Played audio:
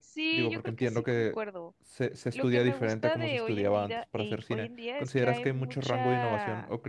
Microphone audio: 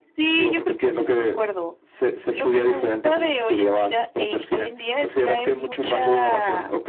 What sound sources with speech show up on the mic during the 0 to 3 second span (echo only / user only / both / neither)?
echo only